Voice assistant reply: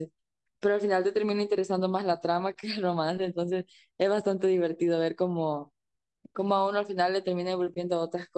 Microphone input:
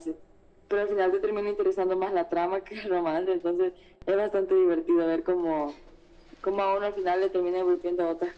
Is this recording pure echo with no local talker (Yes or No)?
Yes